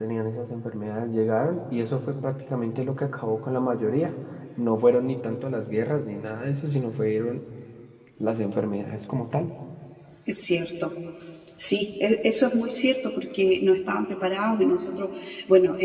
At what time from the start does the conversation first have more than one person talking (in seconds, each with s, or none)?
none